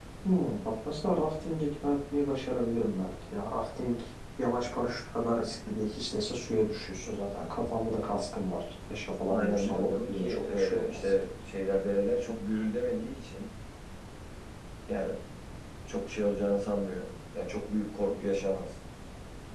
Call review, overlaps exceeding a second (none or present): present